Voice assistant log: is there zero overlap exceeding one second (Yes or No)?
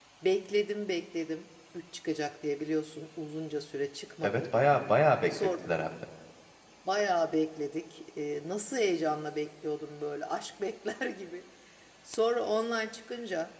Yes